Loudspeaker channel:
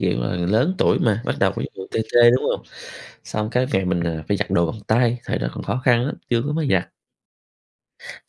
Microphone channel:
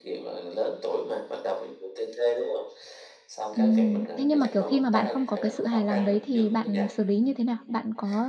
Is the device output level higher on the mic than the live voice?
No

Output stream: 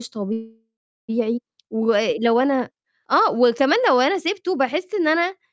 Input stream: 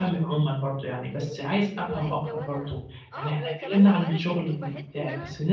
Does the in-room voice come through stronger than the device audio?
Yes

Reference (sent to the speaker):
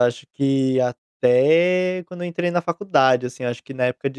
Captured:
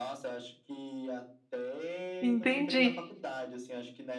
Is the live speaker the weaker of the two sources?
No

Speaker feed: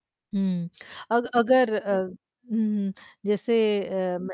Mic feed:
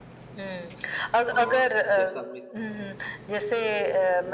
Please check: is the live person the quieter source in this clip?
Yes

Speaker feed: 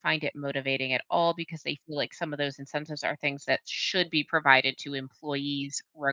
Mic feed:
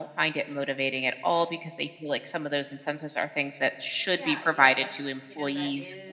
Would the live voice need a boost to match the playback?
Yes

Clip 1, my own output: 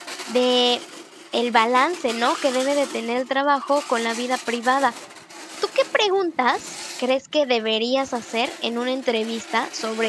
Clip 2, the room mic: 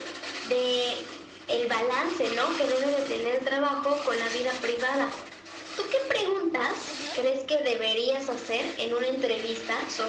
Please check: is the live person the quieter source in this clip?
Yes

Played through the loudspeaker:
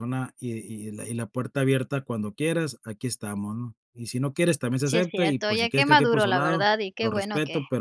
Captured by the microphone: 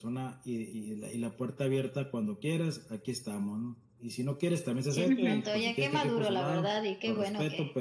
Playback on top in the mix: No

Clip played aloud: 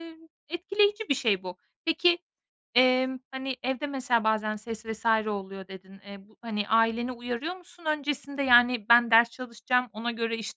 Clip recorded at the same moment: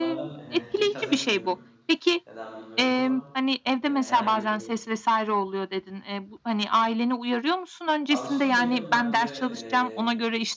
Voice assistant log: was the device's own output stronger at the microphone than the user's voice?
Yes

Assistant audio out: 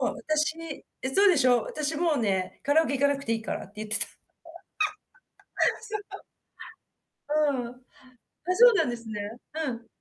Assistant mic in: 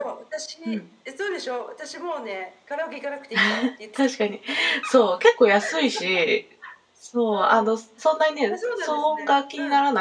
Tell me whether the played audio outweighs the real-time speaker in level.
No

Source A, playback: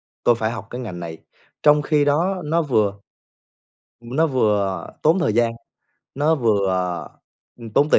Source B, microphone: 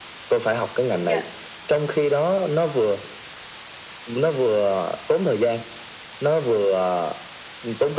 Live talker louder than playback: No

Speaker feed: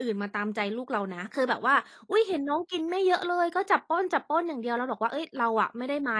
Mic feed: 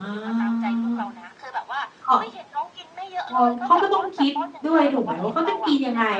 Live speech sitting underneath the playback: No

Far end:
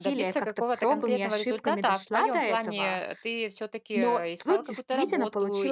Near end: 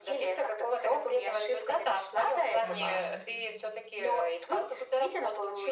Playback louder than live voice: Yes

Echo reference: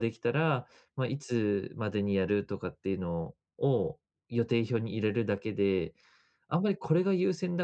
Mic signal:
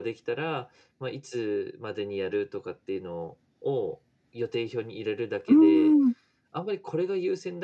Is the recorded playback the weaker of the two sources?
Yes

